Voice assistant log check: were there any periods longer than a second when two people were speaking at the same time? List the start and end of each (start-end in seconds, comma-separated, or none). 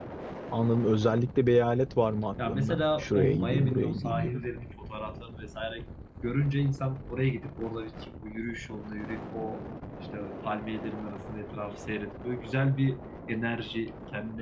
2.5-4.4